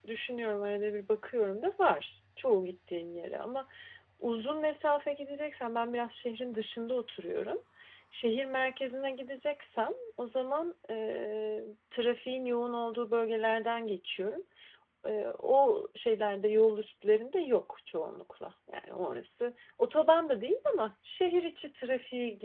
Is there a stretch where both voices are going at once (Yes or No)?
No